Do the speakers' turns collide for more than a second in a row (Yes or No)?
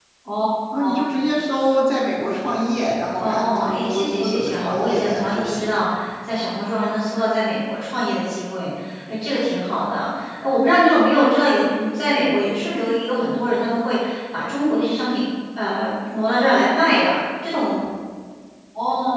Yes